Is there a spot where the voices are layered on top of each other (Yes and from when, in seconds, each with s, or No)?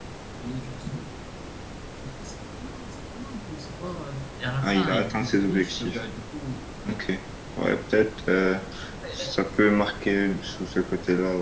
Yes, from 4.6 s